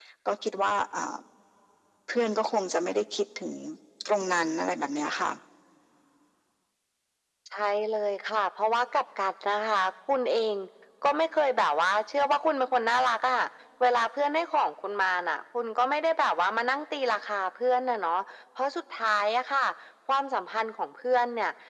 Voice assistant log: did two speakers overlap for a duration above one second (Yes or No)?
No